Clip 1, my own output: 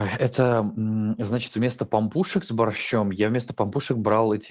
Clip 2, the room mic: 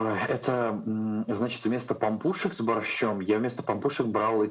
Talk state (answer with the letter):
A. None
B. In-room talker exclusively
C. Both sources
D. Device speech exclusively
D